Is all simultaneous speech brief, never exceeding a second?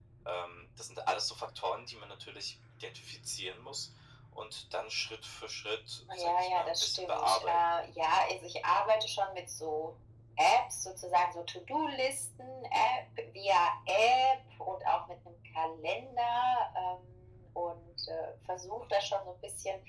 No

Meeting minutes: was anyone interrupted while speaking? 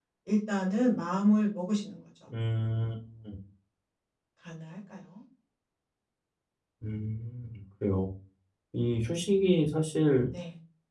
No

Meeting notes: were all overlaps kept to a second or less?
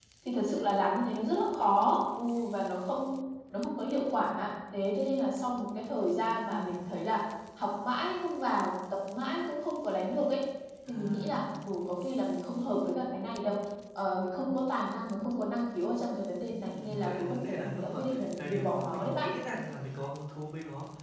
No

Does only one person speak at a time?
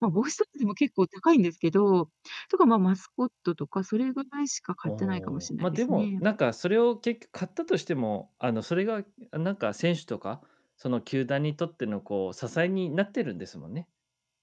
No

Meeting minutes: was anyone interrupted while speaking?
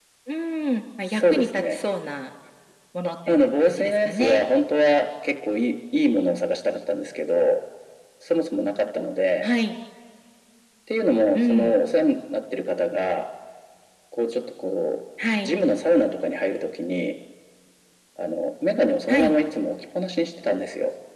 Yes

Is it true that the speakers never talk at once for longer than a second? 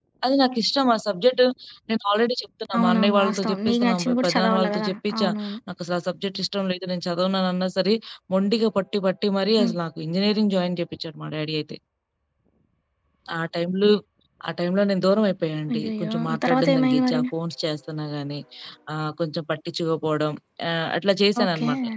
No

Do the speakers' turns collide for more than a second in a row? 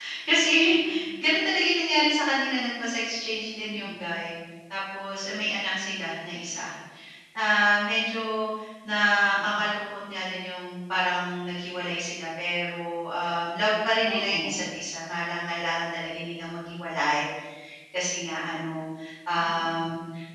No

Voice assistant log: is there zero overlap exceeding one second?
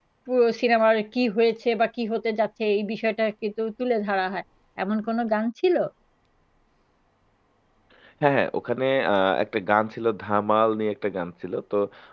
Yes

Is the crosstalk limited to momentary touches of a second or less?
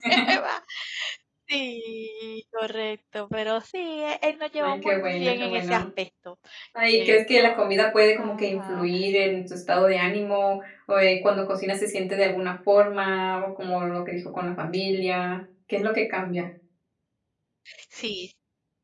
No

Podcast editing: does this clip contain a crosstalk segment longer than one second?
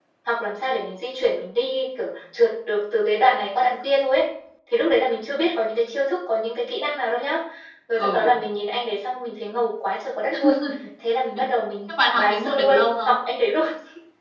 Yes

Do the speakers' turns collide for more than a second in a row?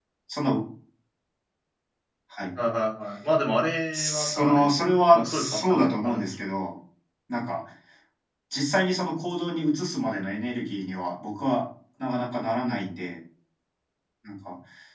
Yes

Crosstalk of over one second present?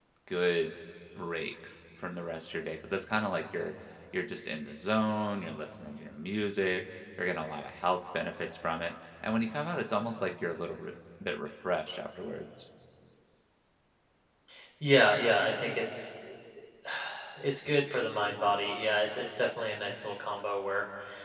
No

